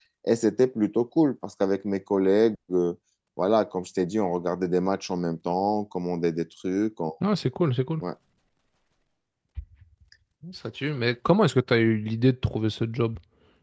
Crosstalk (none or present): none